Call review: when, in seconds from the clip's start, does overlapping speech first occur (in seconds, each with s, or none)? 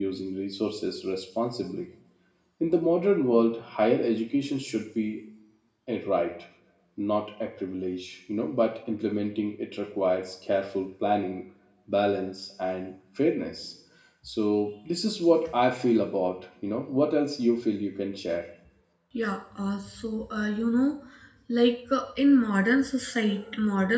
none